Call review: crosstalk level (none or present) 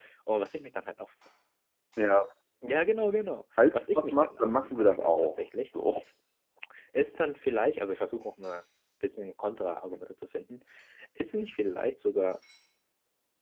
present